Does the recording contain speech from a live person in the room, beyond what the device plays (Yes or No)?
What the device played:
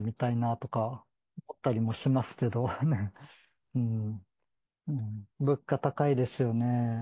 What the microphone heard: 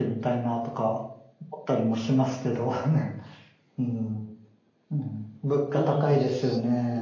Yes